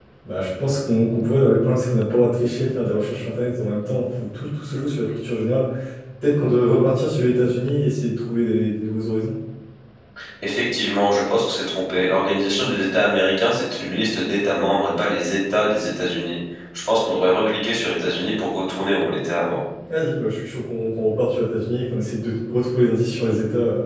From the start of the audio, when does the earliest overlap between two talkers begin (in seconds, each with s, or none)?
none